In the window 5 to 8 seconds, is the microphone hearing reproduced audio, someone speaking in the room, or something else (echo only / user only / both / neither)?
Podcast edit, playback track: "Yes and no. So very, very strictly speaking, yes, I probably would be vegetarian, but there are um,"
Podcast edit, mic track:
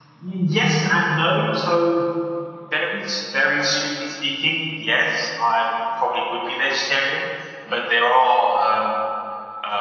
echo only